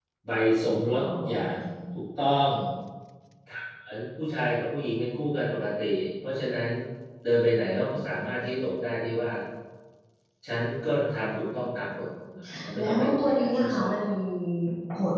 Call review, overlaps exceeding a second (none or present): present